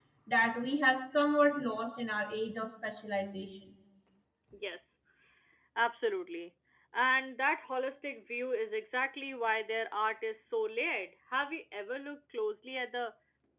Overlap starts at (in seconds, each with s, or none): none